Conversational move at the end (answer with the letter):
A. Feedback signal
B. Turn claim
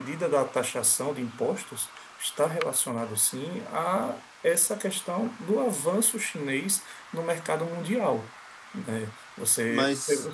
A